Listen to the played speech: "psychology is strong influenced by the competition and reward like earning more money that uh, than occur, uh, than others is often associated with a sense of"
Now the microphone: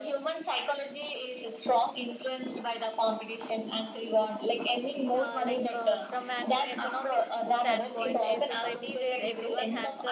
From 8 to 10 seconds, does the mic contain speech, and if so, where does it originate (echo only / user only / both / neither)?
both